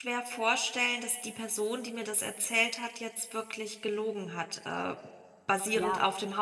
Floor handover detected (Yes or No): No